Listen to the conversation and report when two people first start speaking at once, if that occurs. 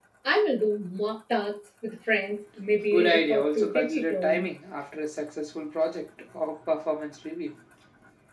2.9 s

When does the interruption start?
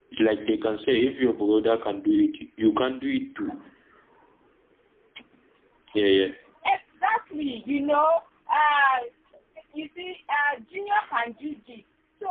none

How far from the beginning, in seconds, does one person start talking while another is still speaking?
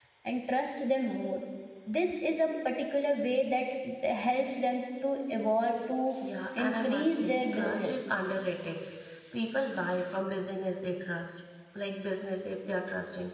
6.7 s

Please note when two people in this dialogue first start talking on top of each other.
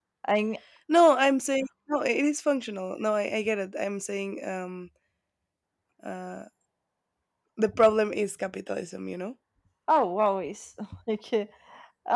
none

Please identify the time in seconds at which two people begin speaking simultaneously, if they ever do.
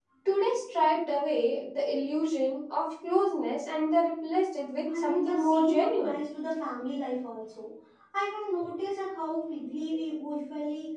4.9 s

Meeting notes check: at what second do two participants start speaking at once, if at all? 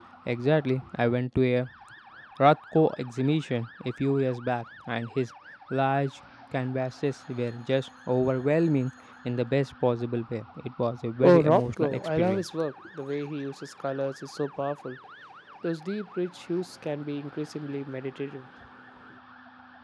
11.2 s

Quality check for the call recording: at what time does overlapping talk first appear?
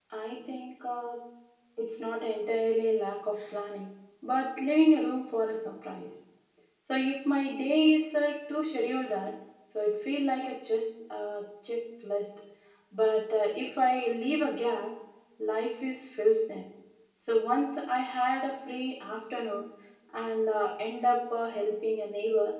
none

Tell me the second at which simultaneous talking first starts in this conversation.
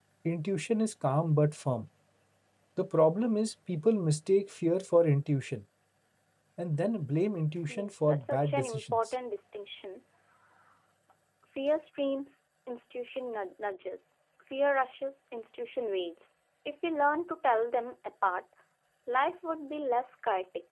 7.7 s

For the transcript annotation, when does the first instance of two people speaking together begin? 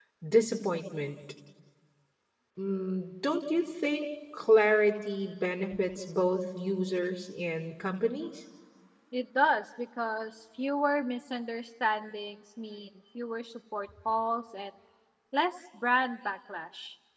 none

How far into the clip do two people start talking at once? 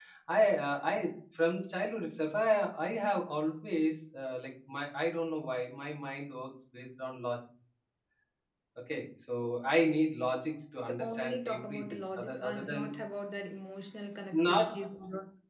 10.9 s

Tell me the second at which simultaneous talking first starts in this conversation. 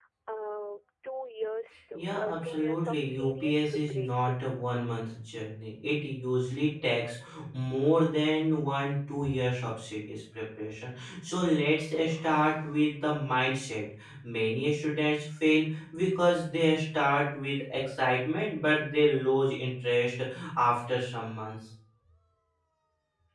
1.9 s

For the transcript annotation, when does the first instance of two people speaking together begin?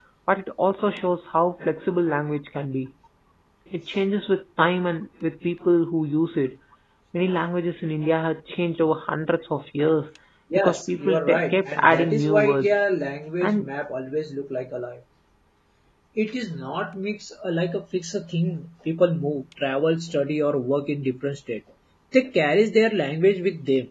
10.6 s

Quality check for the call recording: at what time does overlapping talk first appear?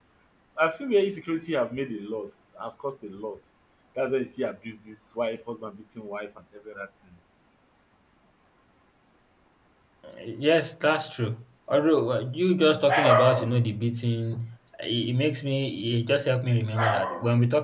none

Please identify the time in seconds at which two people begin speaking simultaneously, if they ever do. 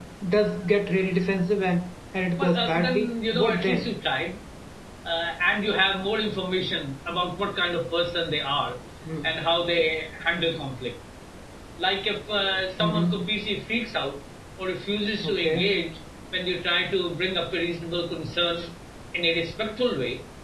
2.4 s

